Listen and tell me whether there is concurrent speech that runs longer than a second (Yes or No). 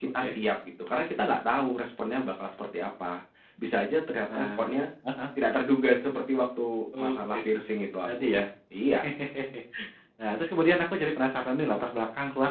No